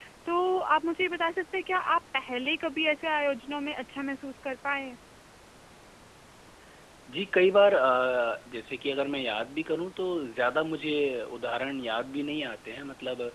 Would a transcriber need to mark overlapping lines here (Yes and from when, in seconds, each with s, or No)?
No